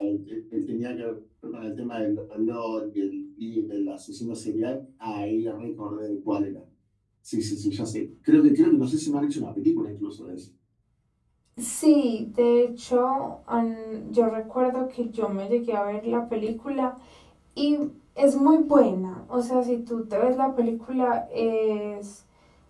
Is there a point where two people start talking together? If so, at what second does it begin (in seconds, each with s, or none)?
none